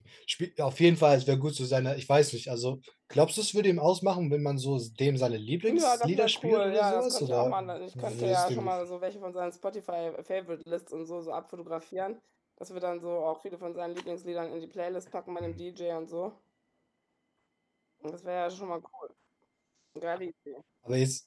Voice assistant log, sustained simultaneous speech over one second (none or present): present